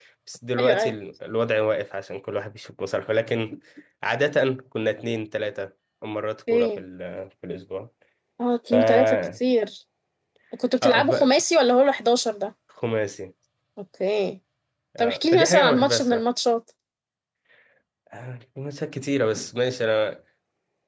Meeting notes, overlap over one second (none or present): present